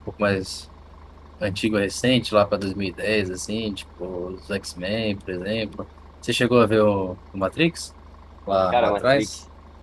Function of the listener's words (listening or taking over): taking over